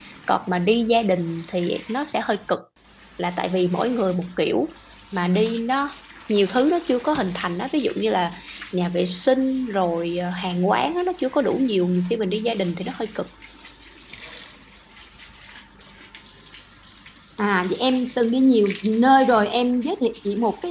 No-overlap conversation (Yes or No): Yes